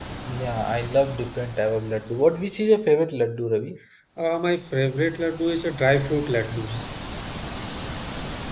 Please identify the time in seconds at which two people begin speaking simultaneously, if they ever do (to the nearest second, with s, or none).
none